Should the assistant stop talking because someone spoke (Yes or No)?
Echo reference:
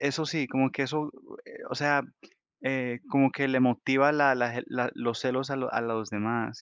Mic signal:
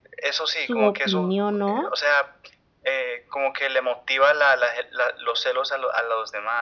Yes